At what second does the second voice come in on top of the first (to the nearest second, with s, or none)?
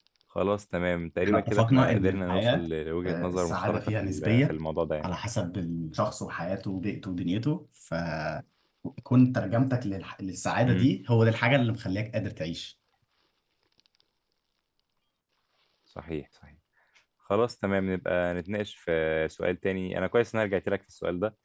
1 s